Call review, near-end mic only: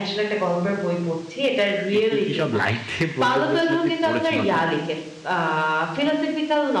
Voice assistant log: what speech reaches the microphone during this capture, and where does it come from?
both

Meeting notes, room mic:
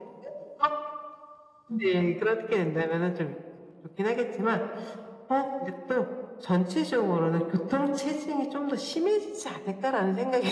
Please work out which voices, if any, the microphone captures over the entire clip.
echo only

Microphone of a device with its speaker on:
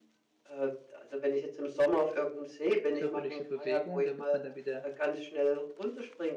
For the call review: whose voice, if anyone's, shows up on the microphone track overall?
both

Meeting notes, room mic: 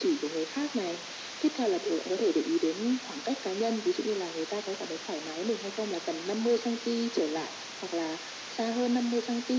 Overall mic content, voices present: echo only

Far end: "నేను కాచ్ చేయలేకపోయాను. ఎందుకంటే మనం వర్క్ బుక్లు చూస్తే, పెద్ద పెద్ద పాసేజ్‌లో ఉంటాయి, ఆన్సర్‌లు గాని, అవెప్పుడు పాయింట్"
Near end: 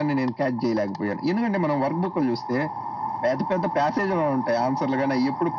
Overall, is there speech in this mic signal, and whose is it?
echo only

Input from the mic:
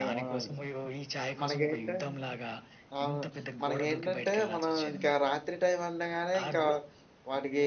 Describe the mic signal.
both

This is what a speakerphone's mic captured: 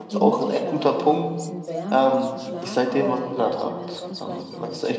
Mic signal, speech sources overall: both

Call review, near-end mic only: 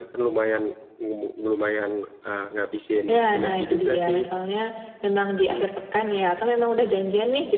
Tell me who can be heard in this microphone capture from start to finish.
both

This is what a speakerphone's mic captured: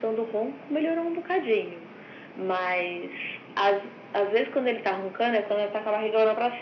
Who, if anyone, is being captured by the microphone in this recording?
echo only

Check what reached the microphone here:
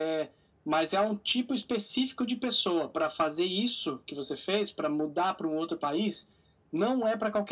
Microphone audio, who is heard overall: echo only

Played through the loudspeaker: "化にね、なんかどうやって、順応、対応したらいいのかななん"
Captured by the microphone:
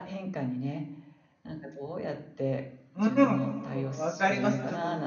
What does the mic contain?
both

